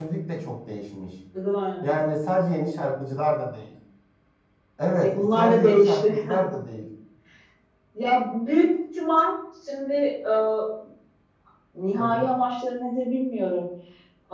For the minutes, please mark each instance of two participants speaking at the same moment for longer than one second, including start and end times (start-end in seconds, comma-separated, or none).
4.8-6.1